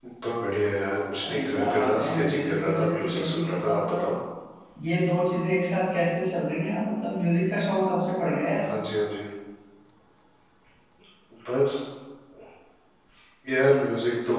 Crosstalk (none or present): present